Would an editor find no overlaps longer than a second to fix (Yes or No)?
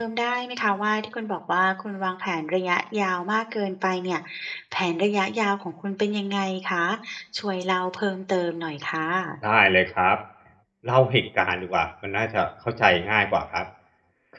Yes